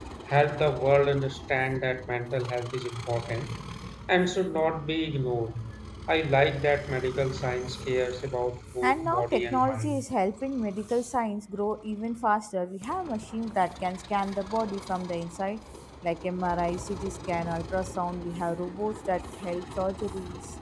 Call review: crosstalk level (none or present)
present